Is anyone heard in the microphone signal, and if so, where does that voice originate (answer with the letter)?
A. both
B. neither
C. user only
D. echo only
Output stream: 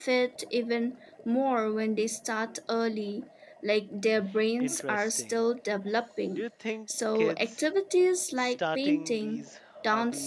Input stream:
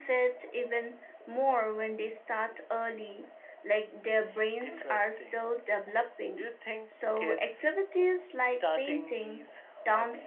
D